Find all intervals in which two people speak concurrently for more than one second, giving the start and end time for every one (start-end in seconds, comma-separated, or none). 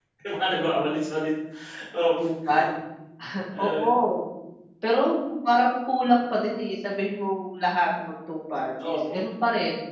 none